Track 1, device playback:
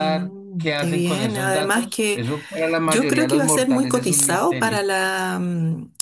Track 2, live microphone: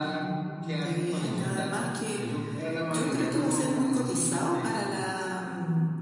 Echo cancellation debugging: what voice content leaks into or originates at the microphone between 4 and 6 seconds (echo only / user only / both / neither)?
echo only